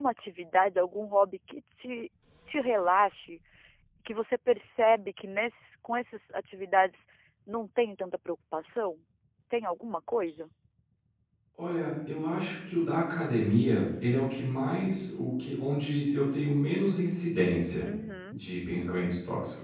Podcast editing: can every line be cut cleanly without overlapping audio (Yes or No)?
Yes